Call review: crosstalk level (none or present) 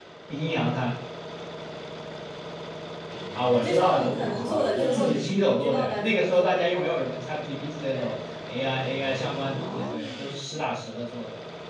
present